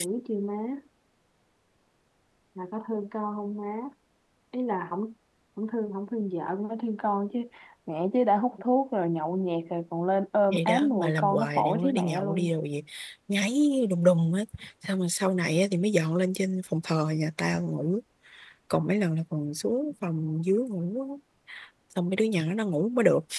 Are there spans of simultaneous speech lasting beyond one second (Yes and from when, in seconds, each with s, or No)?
Yes, from 10.5 s